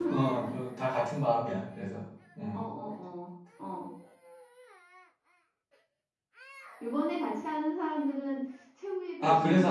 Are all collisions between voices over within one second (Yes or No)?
Yes